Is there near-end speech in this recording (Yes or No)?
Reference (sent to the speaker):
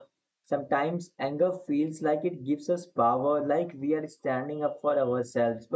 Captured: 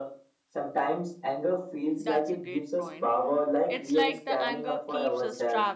Yes